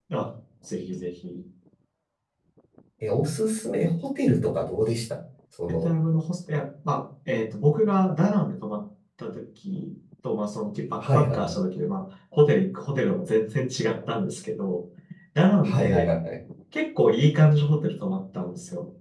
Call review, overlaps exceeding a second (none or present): none